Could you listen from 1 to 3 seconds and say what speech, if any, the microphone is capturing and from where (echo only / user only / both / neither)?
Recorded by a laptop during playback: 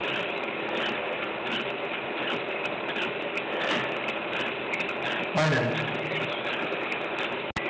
neither